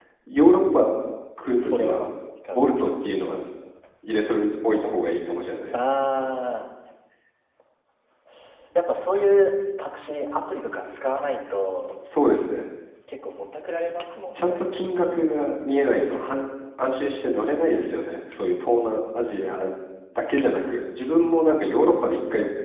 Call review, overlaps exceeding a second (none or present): none